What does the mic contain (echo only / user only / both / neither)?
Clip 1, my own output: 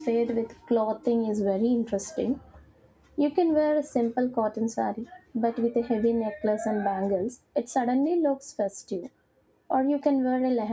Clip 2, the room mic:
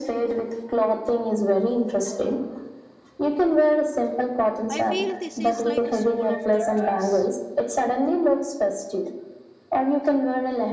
both